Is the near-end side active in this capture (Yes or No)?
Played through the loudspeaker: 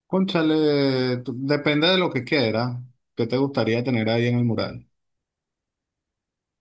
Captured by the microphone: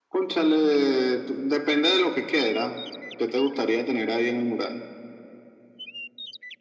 No